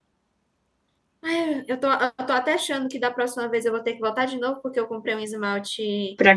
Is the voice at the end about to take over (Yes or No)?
No